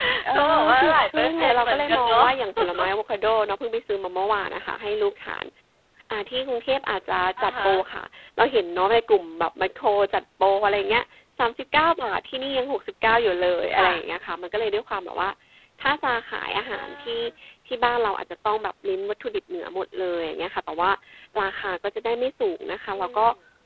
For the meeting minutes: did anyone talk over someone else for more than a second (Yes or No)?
Yes